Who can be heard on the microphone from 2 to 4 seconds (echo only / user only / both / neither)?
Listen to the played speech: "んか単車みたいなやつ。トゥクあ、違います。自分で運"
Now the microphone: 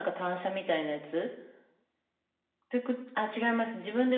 echo only